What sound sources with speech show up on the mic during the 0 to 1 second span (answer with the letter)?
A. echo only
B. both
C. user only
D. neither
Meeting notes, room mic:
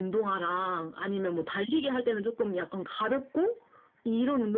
A